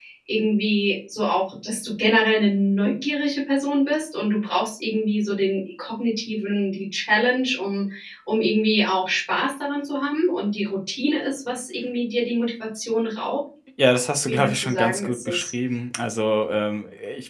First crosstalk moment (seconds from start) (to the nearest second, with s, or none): 14 s